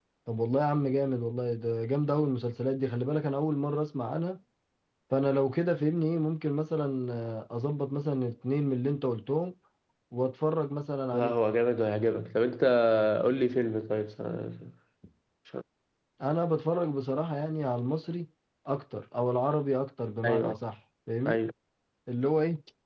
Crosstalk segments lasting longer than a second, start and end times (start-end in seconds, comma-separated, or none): none